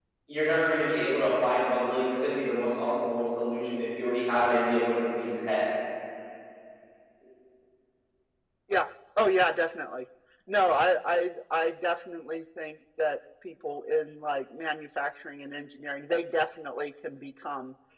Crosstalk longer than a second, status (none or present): none